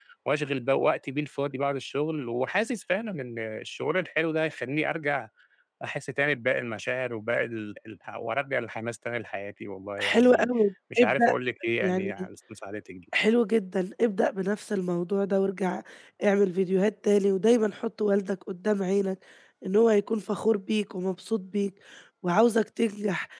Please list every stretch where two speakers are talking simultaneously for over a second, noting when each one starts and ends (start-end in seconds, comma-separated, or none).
none